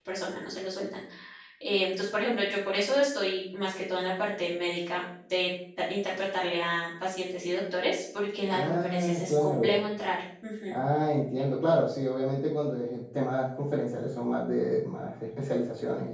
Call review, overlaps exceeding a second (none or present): present